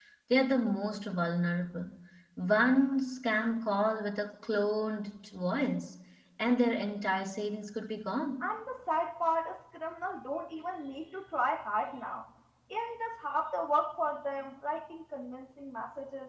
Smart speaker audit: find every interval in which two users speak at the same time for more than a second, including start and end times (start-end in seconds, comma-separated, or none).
none